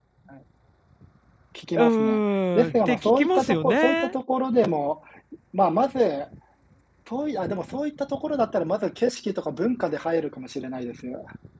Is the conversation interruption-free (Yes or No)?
No